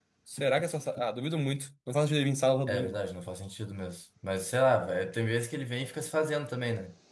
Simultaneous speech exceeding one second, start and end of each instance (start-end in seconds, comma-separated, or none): none